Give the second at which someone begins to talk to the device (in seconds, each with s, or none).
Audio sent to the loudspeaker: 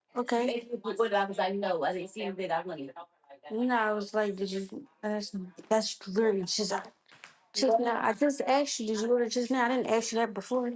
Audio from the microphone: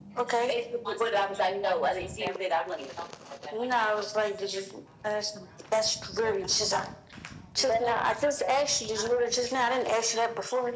none